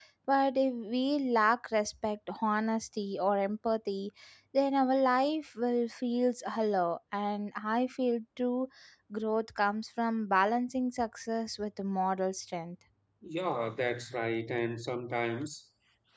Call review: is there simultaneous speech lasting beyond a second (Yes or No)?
No